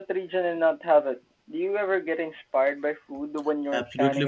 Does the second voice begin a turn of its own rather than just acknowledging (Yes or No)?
Yes